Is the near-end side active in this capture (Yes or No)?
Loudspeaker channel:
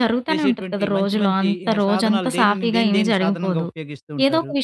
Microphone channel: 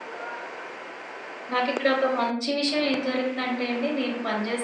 Yes